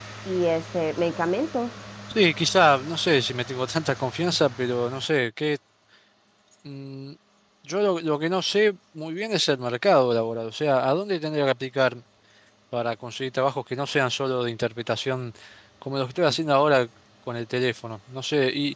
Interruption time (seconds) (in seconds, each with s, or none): none